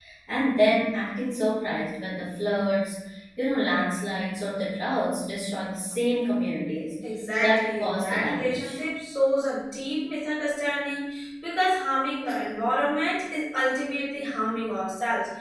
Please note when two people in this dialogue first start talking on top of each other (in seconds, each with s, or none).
7.4 s